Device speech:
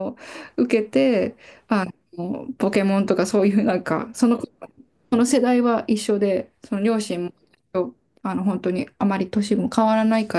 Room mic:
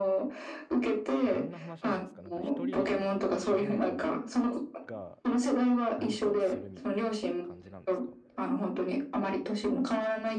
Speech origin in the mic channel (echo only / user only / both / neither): both